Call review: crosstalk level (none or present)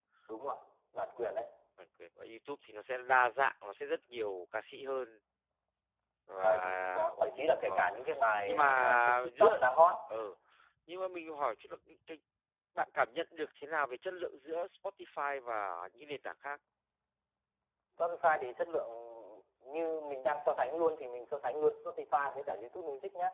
present